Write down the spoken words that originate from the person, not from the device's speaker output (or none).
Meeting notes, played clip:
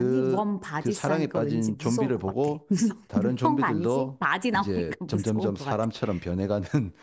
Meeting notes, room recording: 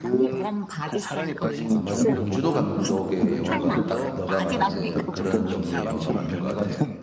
아, 맞아. 봉준호 감독의 영화가 딱 너가 말하는 딱 그런 종류의 영화가 맞는 것 같아.